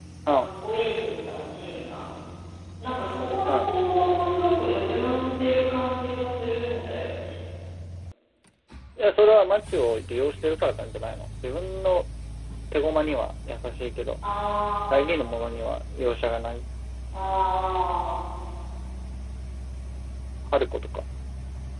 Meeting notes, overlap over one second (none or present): none